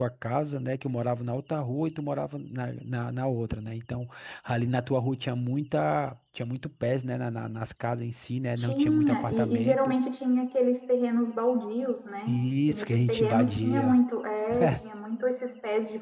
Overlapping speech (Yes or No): Yes